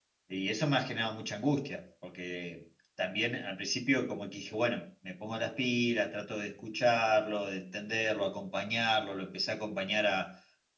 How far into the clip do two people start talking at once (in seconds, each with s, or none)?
none